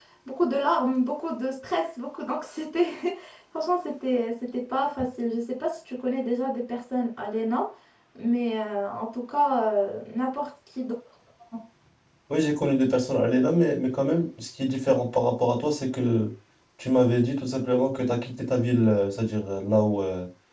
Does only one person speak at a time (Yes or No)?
Yes